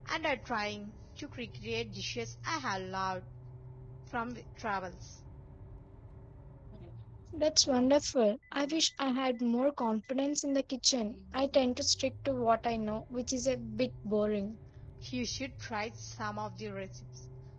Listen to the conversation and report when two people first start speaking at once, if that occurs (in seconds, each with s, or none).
none